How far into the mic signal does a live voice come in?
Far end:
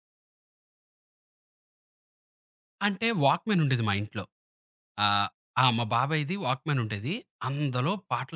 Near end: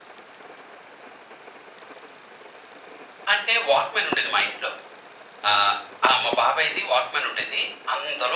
none

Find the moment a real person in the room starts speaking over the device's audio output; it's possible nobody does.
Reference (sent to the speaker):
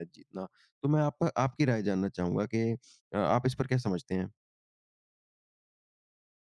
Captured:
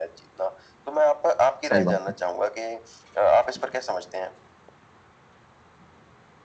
1.6 s

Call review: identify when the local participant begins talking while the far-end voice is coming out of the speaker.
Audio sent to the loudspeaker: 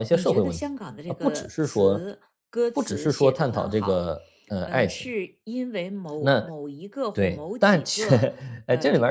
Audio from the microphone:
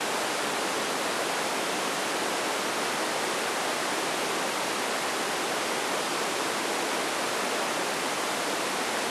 none

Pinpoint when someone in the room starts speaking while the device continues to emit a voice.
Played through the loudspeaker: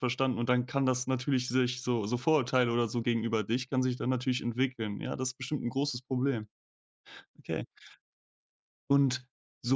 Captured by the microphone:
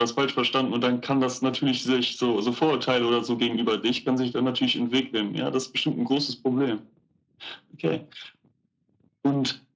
none

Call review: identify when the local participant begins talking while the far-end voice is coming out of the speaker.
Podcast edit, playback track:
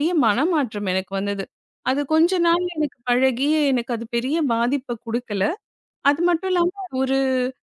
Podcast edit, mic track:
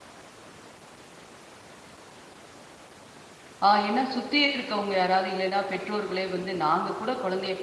3.7 s

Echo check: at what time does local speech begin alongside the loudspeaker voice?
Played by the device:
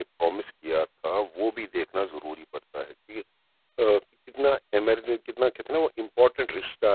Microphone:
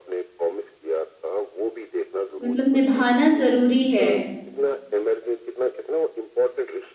2.4 s

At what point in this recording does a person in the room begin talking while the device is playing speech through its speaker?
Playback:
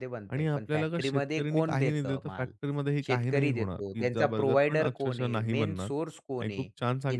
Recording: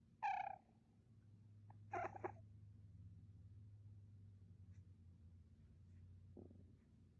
none

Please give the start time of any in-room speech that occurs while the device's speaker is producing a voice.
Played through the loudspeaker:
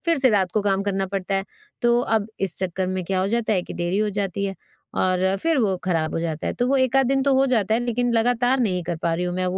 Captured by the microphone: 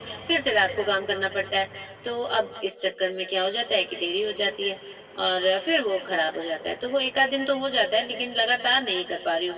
none

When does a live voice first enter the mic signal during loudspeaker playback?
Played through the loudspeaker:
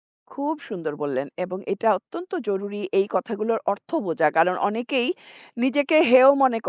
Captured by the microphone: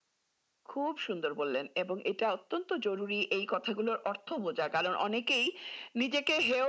none

